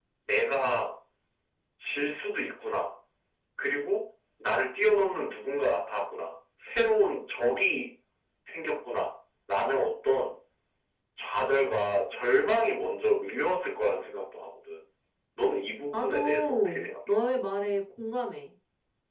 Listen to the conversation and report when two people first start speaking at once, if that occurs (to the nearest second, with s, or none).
16 s